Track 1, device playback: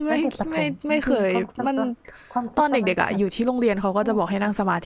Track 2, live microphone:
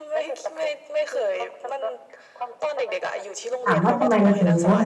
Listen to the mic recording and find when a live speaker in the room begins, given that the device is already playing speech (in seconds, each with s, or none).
3.6 s